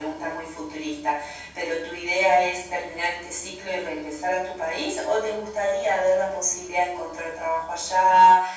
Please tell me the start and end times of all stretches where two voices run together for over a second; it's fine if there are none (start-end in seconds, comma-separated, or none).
none